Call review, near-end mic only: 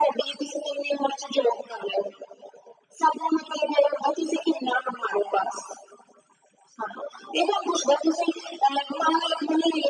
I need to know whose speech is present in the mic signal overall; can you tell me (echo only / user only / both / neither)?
echo only